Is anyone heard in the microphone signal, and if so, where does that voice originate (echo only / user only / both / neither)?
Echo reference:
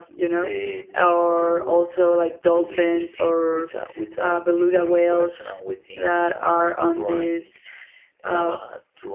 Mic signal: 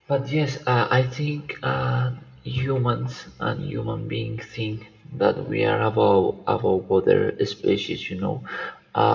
user only